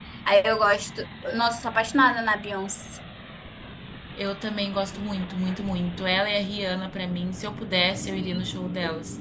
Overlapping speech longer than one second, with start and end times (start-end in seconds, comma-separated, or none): none